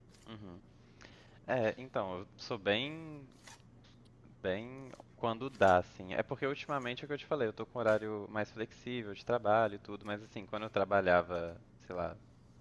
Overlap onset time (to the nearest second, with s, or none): none